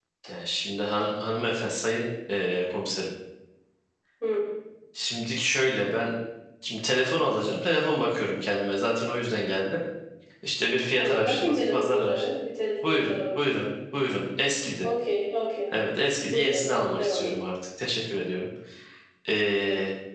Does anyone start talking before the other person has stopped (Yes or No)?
Yes